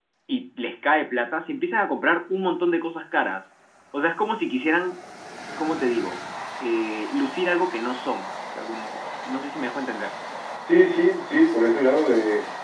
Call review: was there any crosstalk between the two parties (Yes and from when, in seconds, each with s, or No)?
No